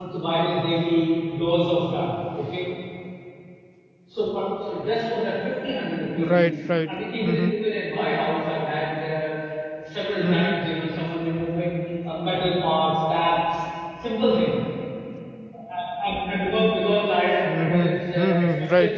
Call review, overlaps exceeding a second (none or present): present